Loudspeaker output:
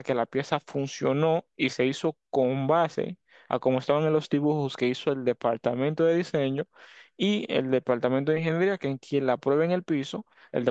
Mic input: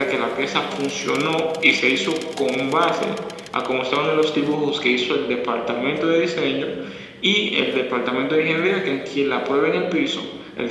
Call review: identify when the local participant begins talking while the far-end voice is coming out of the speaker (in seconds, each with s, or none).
none